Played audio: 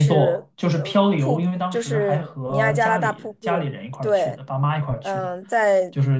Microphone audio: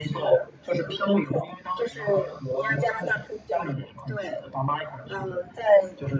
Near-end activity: none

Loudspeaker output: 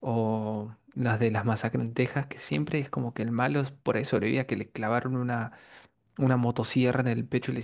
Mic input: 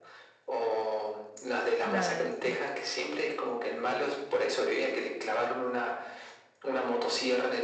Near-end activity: present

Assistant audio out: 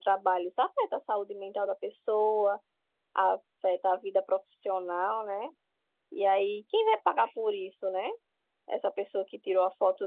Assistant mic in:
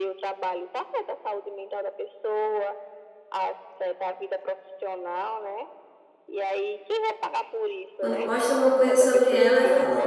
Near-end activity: present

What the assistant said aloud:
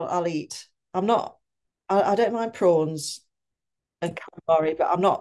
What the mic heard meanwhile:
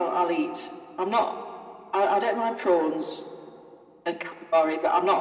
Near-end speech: none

